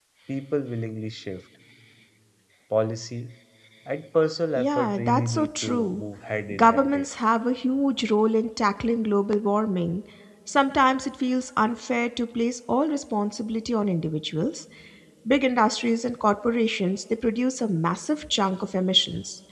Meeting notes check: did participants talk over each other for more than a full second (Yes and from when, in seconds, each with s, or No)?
Yes, from 4.6 s